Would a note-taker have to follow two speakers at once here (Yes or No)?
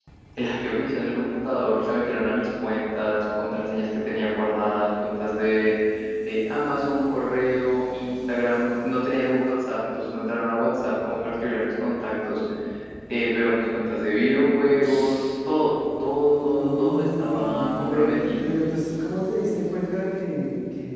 Yes